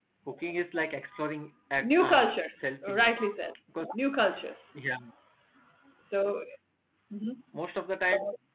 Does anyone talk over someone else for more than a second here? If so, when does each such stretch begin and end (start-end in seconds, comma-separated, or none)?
1.8-3.1